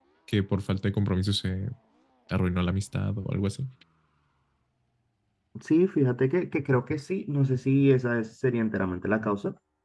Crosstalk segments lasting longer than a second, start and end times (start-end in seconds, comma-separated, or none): none